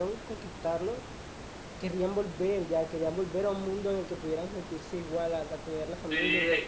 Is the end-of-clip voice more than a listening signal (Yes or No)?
Yes